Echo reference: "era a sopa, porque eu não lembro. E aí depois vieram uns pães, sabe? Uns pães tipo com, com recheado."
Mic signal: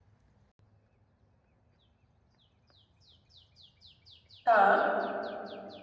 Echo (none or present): none